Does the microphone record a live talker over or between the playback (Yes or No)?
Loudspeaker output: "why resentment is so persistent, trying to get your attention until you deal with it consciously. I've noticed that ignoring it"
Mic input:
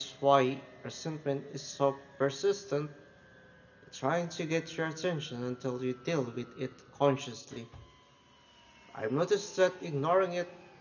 No